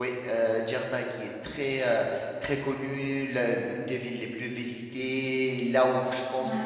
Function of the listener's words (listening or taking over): listening